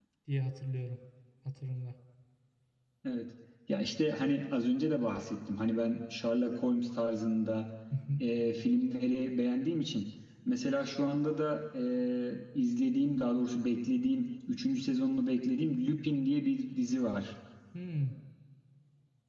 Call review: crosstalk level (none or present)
none